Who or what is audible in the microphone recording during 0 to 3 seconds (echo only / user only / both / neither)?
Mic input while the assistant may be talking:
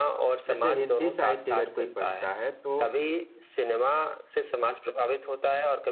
both